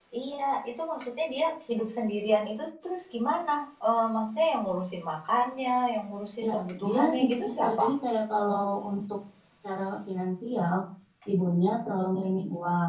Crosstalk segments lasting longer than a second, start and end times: 6.4-7.8

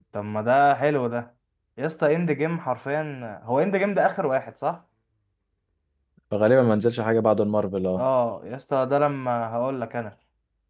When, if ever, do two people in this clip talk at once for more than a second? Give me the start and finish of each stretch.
none

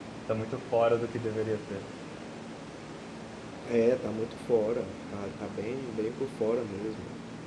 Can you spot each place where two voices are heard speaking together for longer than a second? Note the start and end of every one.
none

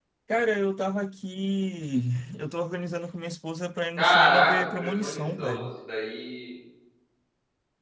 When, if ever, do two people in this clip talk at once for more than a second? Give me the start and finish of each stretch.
4.0-5.7

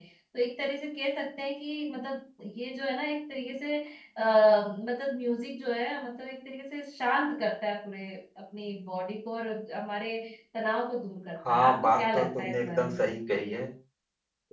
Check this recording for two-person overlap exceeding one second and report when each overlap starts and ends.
11.5-13.0

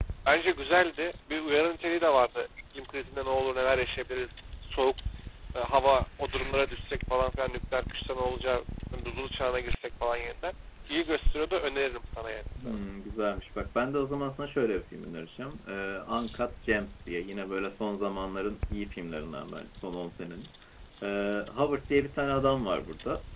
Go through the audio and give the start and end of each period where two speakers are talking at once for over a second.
none

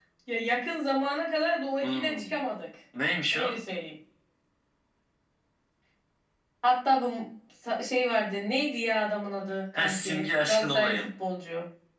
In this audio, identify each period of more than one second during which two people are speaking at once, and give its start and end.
9.7-11.0

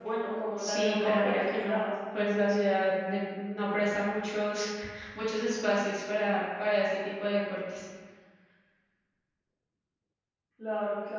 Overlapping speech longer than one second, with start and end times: 0.6-1.9

